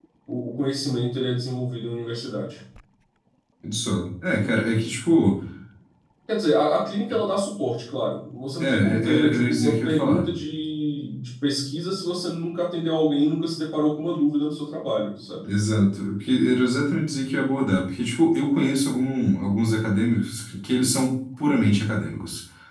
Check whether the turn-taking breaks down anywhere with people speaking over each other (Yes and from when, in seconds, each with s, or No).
Yes, from 8.6 s